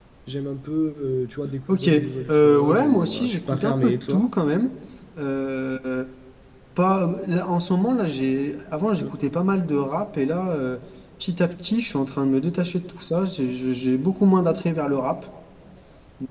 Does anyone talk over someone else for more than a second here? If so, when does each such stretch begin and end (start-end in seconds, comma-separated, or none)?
2.3-4.2